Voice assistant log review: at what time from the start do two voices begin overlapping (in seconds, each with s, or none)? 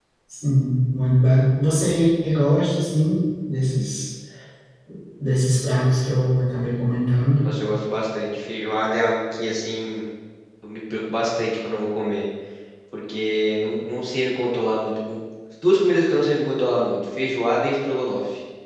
none